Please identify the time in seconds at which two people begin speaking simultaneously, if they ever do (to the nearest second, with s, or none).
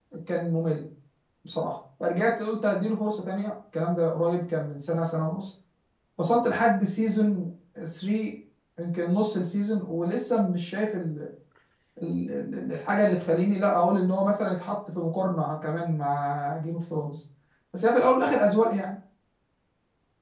none